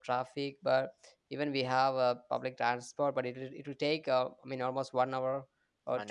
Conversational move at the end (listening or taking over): listening